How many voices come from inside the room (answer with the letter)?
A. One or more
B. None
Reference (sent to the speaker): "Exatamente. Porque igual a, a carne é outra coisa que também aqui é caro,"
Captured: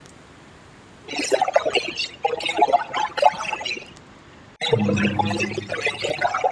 A